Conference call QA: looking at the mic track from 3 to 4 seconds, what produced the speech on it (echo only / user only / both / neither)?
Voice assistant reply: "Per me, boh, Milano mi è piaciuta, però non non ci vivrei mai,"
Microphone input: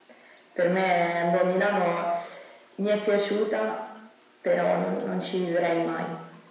echo only